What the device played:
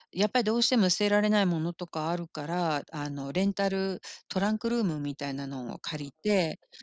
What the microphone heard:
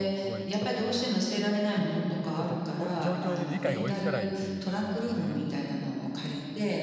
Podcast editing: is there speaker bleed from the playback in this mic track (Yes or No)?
Yes